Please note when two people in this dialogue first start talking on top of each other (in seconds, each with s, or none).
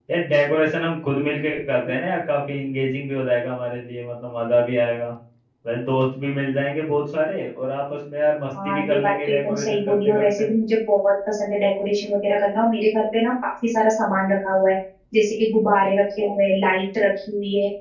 8.6 s